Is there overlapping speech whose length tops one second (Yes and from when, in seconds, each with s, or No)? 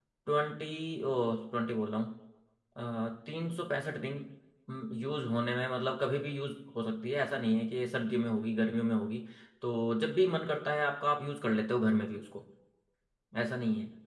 No